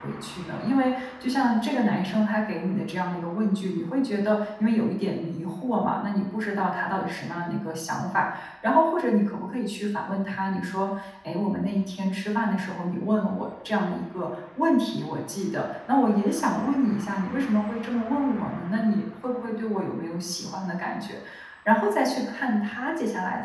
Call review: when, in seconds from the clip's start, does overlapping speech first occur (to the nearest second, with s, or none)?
none